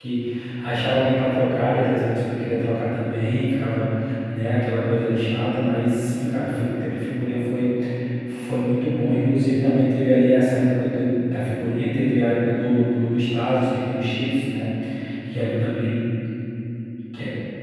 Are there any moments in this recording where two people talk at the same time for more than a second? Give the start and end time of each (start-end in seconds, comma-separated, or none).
none